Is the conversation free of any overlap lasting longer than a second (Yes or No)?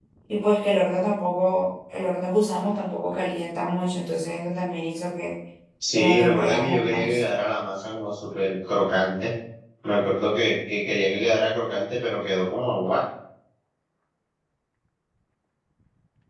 No